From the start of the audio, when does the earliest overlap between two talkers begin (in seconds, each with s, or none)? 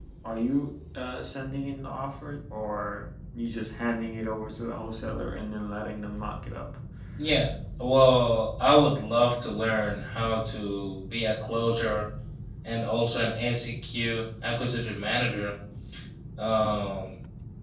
none